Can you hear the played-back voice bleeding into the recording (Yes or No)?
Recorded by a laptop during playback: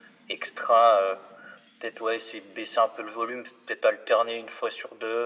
Yes